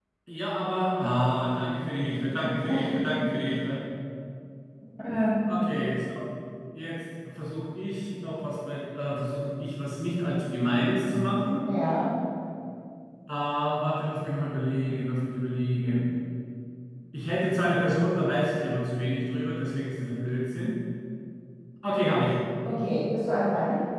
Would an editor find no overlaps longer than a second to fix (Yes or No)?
Yes